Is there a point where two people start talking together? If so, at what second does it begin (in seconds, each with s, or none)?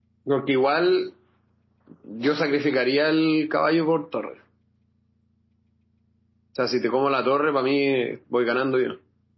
none